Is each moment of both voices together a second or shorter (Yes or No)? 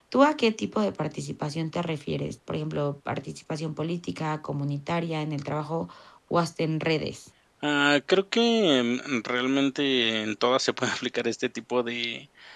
Yes